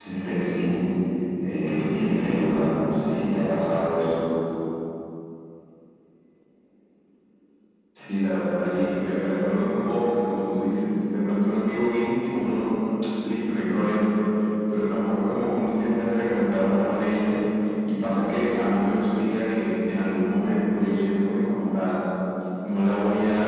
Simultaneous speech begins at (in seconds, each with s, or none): none